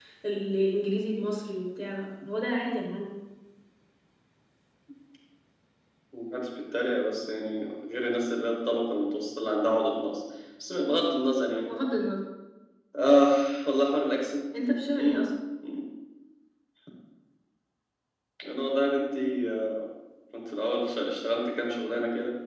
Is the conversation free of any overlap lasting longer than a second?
Yes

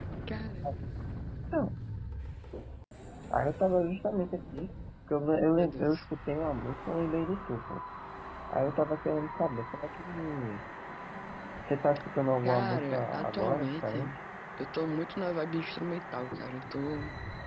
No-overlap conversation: No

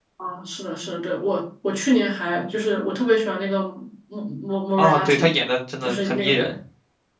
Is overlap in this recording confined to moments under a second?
Yes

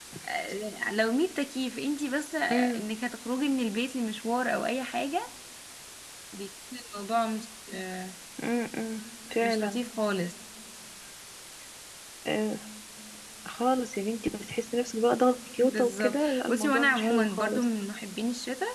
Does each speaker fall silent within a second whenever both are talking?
No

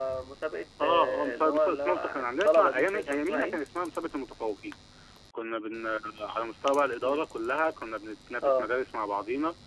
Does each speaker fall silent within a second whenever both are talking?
No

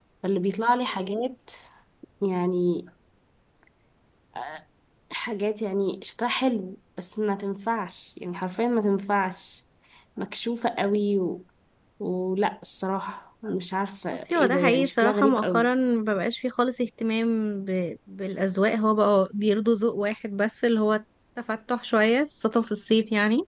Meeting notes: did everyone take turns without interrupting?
No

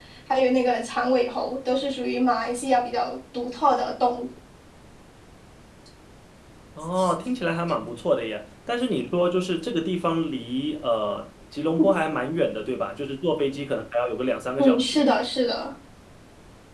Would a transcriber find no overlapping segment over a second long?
Yes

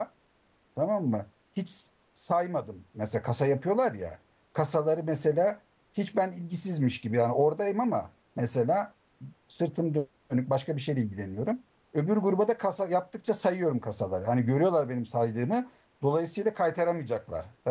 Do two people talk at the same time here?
No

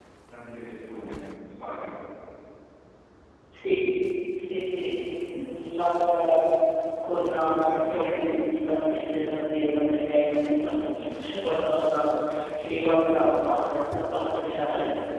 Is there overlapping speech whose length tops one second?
No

